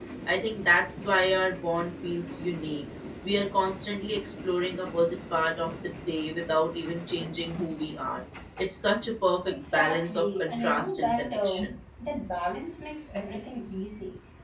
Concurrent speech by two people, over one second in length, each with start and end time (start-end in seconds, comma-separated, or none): 9.5-11.8